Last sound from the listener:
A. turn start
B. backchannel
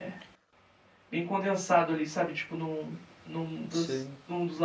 B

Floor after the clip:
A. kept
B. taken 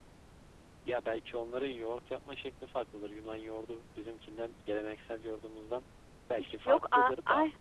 B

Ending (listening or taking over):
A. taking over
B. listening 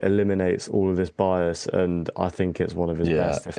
A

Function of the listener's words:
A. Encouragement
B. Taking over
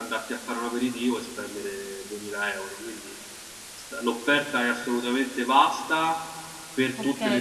B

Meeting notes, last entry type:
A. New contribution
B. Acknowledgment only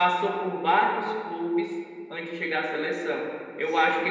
B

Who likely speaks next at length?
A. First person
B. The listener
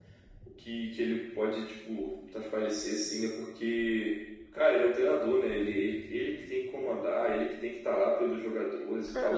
B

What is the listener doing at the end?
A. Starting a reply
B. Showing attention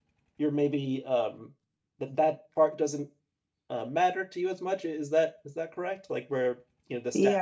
A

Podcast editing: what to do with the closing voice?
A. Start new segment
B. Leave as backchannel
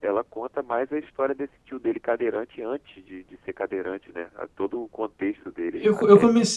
A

